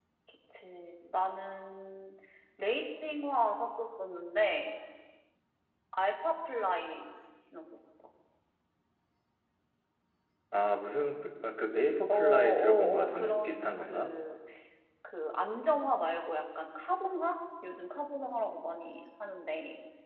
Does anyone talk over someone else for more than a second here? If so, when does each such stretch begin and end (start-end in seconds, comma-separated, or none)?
12.1-14.1